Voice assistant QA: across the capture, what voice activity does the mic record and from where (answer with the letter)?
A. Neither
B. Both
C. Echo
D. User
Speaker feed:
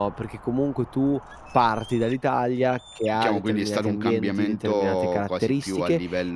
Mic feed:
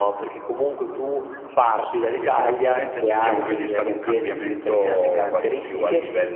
B